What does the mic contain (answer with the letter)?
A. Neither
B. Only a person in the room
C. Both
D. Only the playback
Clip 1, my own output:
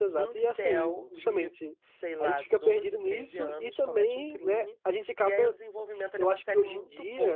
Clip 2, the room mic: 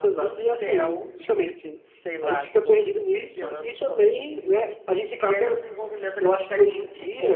D